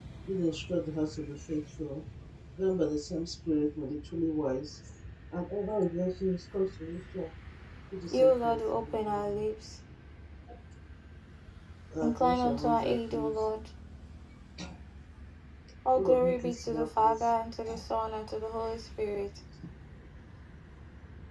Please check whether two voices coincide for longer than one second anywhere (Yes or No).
Yes